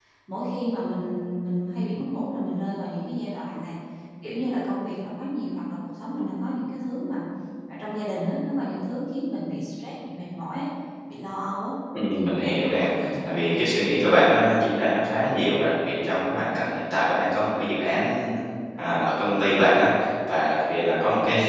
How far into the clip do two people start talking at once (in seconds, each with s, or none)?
12.2 s